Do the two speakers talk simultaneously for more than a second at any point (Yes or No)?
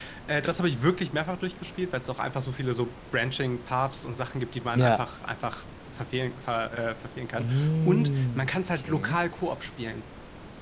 Yes